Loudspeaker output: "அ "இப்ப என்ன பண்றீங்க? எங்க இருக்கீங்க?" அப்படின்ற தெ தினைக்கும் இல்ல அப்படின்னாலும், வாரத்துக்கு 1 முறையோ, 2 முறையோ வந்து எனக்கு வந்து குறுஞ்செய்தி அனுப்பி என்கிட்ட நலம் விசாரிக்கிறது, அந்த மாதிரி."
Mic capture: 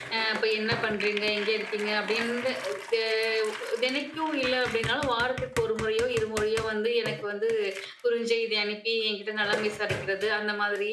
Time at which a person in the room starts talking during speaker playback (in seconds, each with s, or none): none